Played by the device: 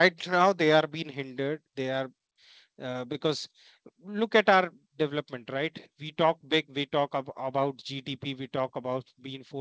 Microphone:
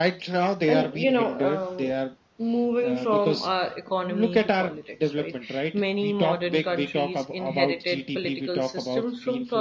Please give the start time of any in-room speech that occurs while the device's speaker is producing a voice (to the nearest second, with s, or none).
1 s